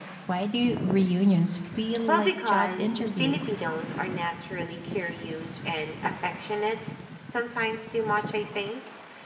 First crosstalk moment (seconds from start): 2 s

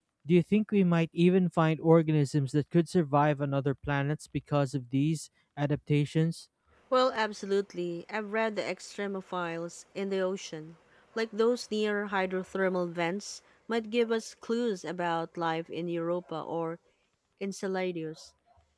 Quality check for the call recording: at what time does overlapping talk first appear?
none

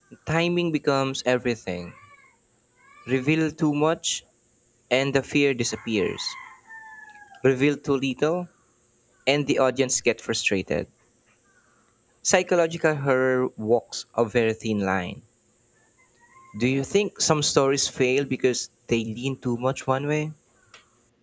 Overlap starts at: none

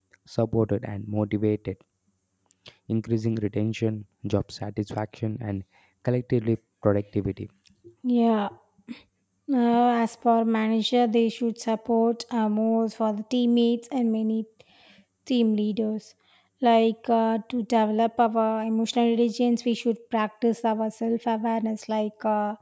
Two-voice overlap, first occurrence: none

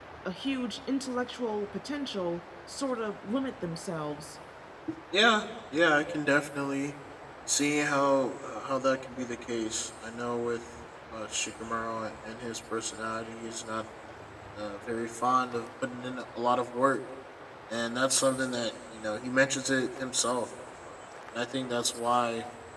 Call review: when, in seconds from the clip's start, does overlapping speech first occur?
none

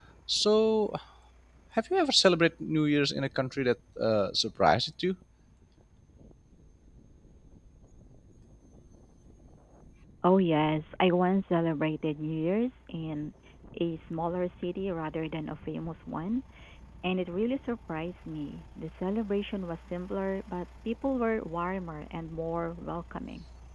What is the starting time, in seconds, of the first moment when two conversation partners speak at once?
none

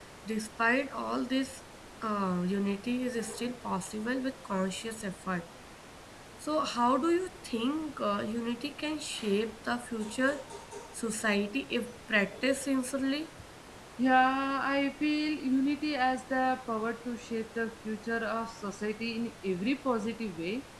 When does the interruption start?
none

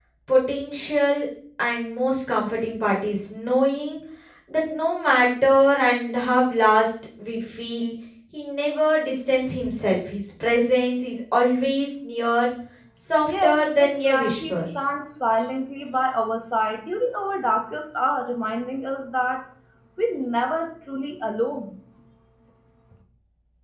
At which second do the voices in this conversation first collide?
13 s

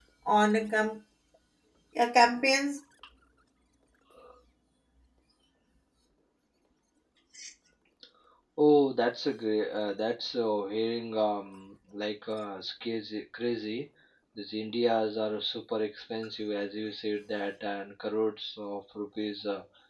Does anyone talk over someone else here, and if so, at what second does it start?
none

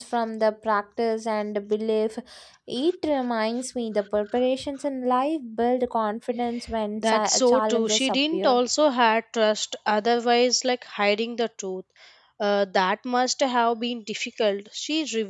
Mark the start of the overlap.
7 s

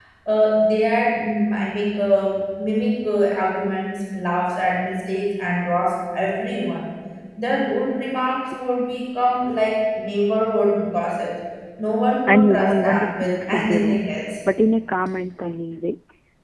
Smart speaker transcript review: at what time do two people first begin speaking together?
12 s

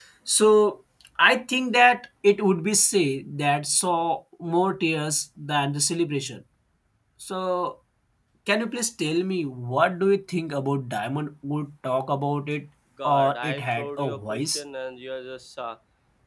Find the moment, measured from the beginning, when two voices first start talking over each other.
13 s

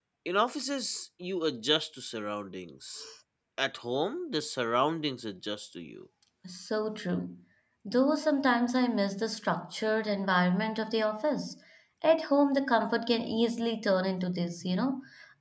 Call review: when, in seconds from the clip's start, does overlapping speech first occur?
none

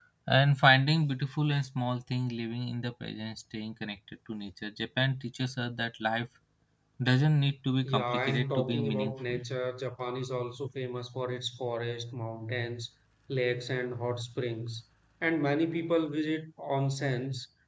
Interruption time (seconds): 8 s

